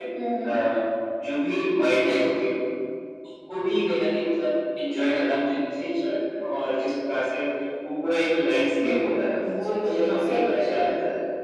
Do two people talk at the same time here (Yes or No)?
Yes